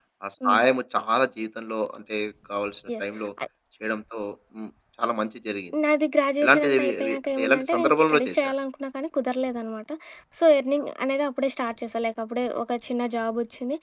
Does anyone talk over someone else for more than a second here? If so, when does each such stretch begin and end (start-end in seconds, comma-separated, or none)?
6.4-8.5